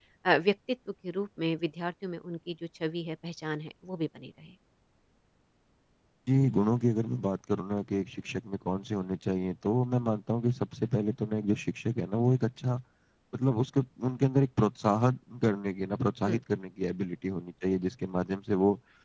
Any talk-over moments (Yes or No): No